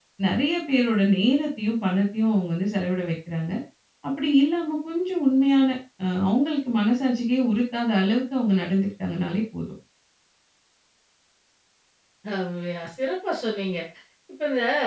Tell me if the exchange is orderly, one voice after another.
Yes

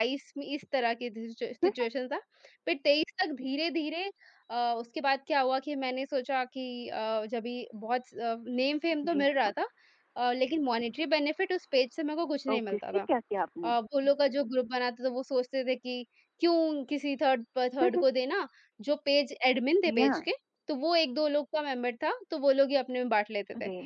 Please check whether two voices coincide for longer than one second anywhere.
No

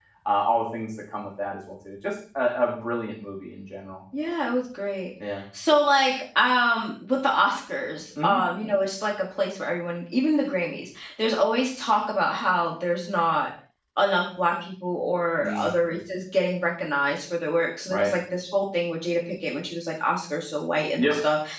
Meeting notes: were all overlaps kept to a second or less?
Yes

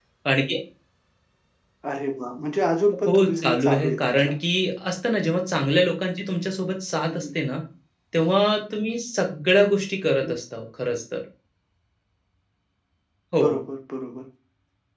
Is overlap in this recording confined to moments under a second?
No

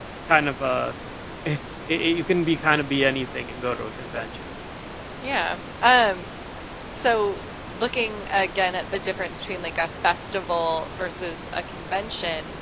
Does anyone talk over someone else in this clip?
No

